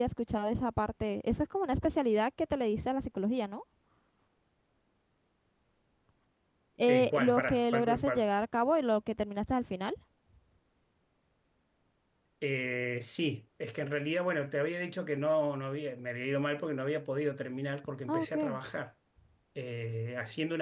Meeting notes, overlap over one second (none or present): present